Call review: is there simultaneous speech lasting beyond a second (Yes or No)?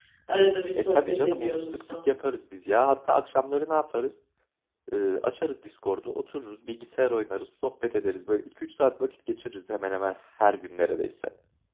Yes